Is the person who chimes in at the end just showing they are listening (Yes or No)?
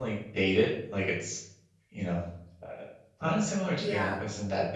Yes